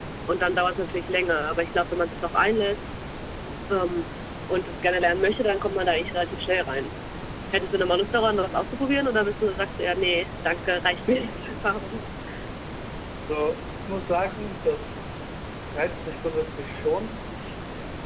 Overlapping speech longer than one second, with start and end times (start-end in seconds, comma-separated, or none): none